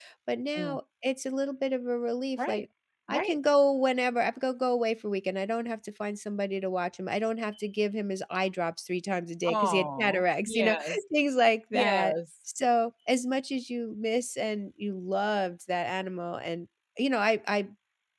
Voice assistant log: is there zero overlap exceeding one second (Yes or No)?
No